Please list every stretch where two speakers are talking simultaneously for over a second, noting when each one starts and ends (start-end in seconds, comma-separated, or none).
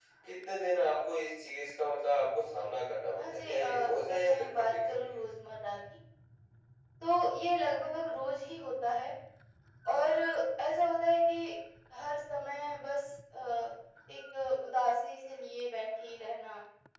3.2-5.2